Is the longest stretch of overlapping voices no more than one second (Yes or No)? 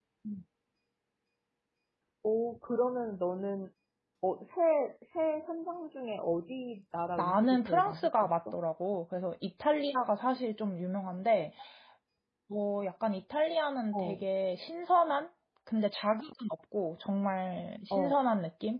No